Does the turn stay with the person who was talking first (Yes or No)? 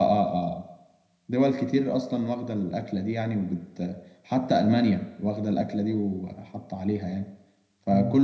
Yes